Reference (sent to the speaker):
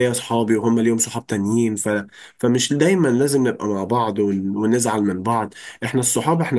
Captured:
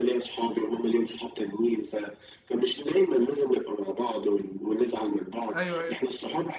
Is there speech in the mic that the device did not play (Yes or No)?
Yes